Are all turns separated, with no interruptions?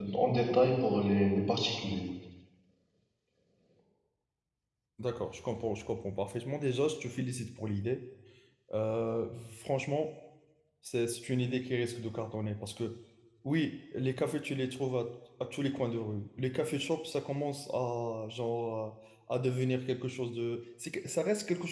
Yes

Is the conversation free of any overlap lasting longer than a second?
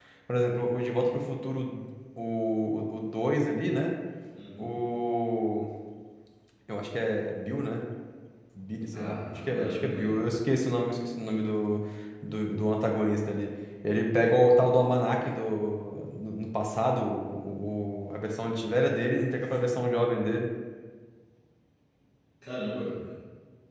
No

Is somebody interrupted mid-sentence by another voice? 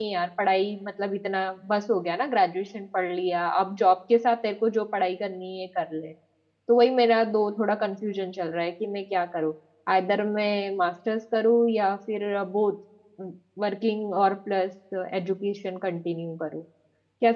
No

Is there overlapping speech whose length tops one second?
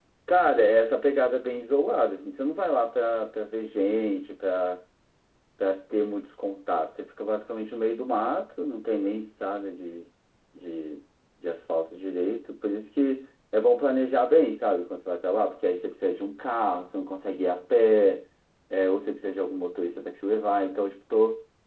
No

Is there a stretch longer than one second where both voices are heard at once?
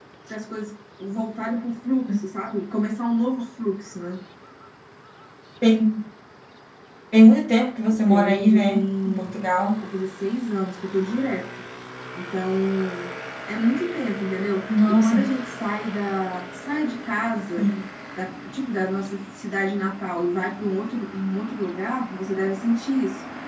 Yes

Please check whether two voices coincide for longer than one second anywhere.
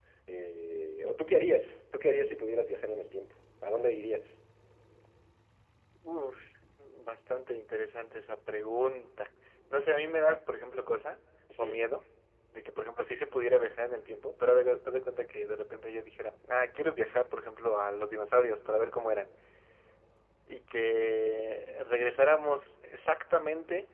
No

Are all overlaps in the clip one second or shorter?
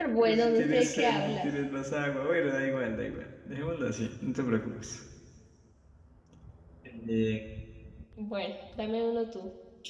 No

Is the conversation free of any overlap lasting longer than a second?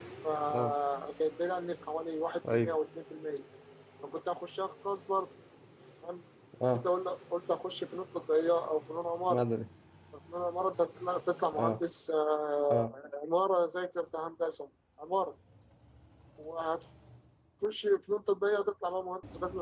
Yes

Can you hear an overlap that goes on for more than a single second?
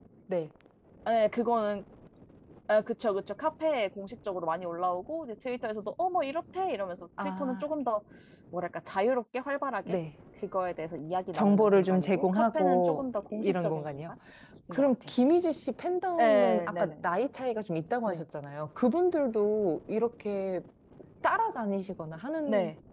Yes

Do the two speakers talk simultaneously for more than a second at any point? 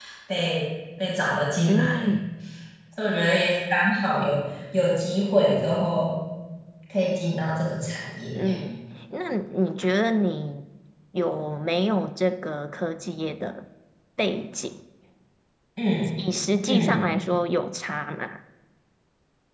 No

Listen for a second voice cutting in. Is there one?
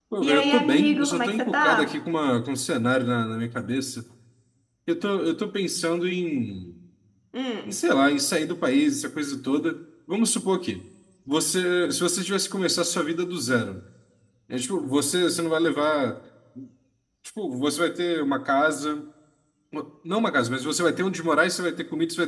Yes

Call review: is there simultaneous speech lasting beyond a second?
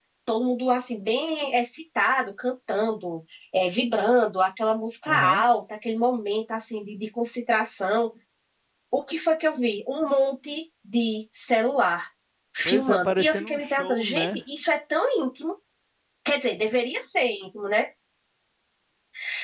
Yes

